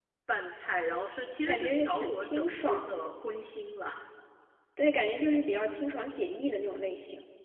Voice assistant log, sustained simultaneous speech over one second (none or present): present